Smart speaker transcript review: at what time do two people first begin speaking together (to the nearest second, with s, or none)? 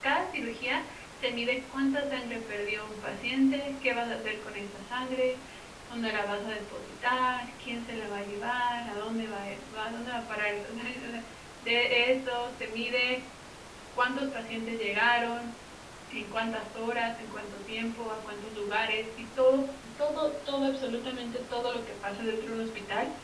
none